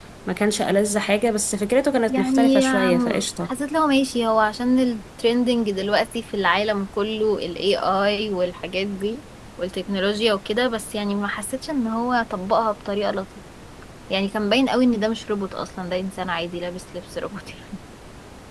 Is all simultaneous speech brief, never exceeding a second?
No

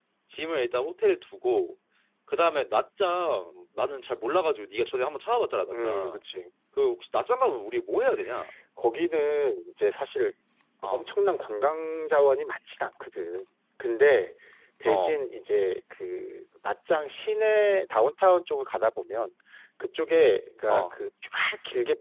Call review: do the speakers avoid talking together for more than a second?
Yes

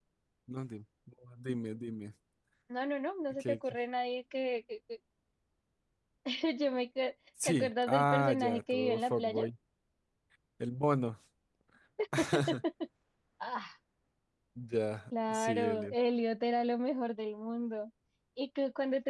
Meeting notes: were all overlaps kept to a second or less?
No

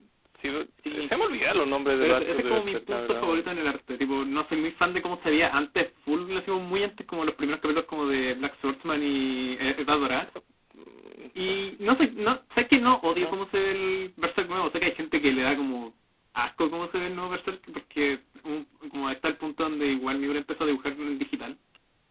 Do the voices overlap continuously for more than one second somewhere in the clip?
Yes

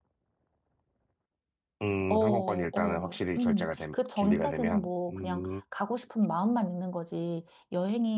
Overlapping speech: Yes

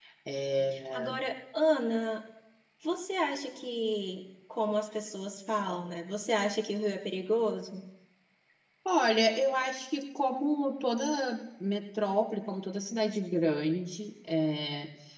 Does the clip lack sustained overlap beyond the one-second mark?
Yes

